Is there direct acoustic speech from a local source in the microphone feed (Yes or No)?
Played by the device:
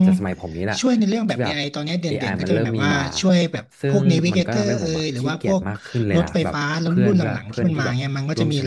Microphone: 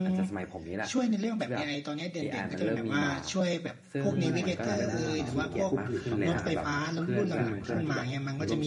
Yes